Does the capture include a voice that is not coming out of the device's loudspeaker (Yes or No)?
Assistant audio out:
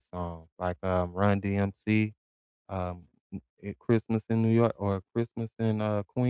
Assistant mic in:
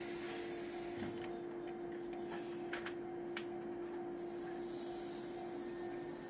No